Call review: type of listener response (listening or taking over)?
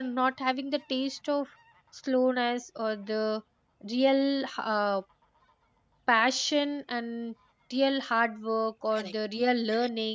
listening